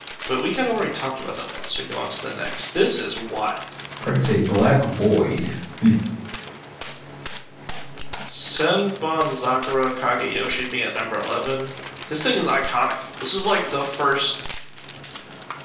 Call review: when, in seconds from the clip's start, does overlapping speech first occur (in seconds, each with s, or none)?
none